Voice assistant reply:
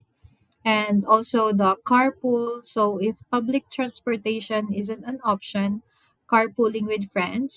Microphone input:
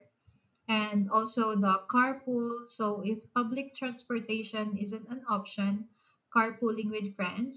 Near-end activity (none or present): none